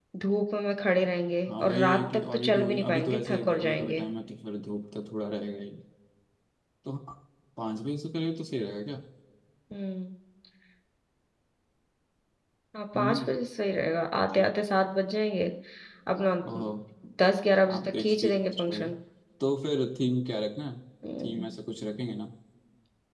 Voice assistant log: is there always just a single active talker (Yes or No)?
No